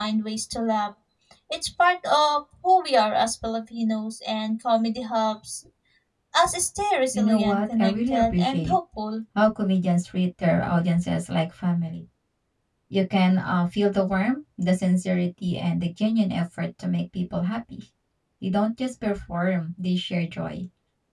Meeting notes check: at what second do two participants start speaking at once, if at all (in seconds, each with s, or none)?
7.1 s